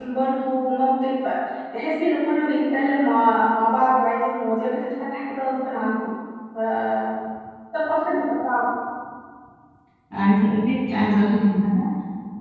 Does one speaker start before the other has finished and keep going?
No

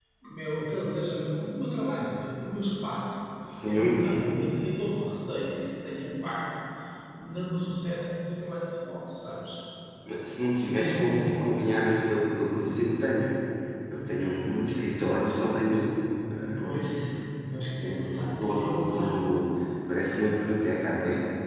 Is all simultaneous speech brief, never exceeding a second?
No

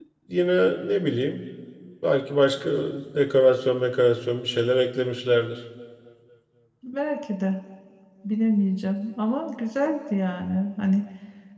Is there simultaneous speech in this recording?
No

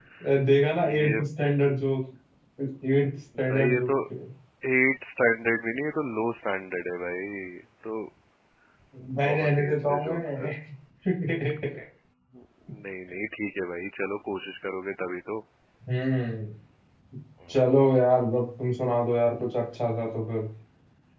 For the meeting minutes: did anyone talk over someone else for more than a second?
Yes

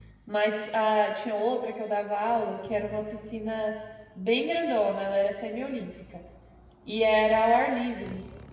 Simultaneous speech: No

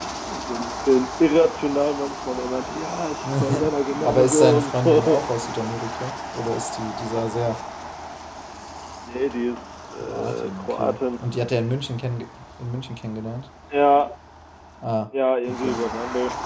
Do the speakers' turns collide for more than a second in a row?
Yes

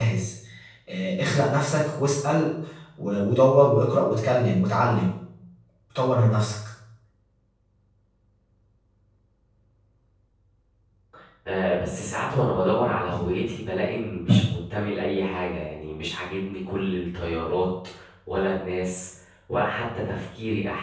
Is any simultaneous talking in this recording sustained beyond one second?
No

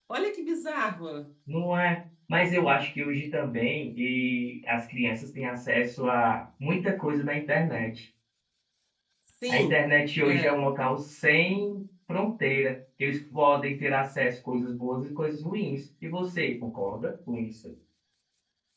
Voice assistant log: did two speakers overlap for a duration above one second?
No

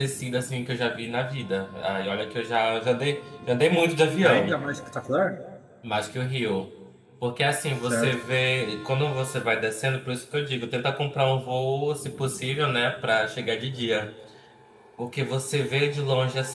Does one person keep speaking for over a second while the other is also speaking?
No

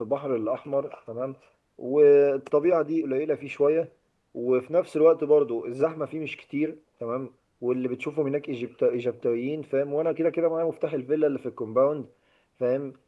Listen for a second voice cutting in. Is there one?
No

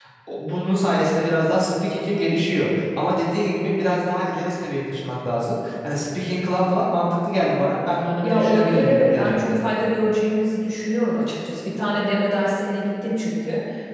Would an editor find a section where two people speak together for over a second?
Yes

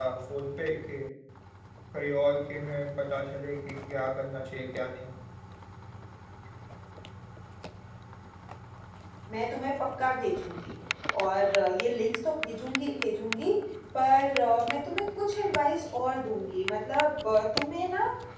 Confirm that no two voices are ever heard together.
Yes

